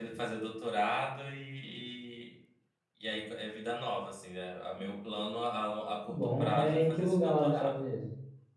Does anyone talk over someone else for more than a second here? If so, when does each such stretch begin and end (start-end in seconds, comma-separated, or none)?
6.1-7.8